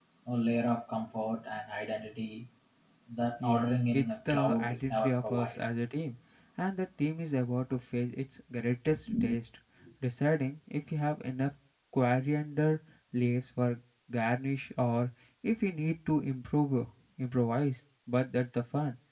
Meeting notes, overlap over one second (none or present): present